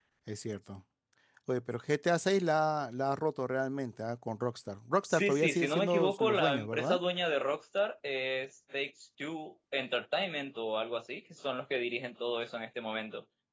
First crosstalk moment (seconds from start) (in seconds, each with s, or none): 5.0 s